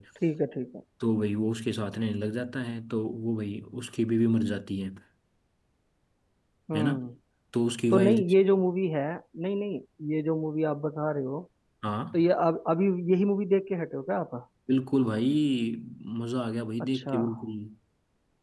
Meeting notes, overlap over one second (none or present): none